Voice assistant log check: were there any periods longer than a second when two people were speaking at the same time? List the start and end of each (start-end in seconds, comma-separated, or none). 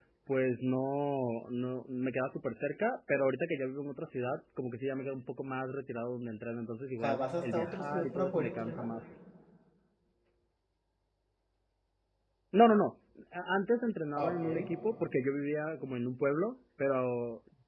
7.0-8.9